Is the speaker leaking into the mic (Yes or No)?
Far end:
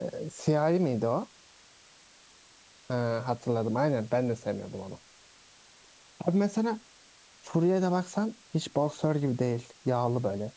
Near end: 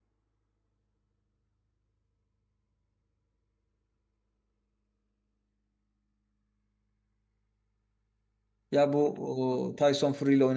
No